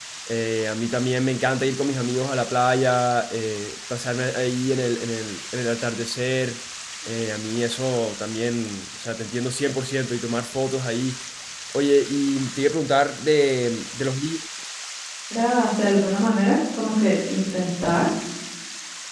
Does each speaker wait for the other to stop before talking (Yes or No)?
Yes